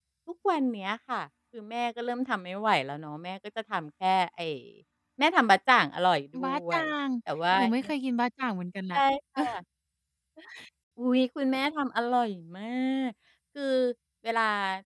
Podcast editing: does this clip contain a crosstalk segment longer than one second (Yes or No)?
No